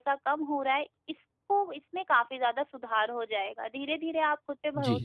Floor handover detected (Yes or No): No